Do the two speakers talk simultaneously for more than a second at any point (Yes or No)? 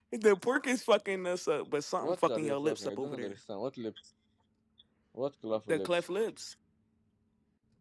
Yes